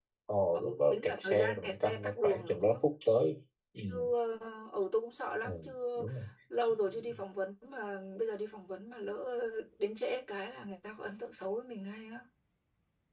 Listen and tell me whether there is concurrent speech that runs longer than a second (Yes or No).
Yes